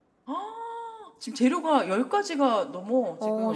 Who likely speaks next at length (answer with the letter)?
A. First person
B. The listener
B